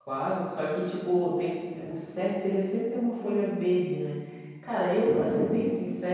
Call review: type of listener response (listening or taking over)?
listening